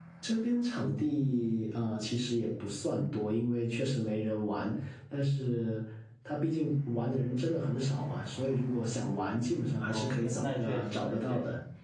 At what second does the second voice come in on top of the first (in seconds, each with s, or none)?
9.8 s